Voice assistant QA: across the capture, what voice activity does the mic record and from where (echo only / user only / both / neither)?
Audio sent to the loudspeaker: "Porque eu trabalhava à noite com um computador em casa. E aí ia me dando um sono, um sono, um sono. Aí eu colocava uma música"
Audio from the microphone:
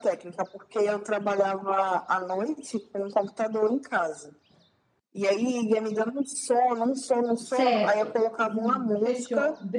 both